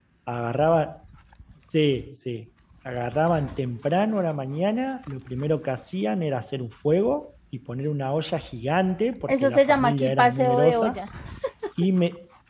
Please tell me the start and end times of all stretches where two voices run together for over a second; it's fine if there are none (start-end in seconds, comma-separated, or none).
9.3-11.0